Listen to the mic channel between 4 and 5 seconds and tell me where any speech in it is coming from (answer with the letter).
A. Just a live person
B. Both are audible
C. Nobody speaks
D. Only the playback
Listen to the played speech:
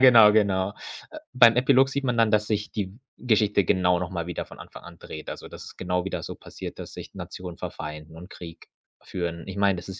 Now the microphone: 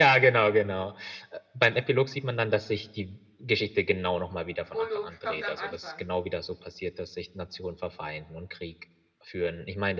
B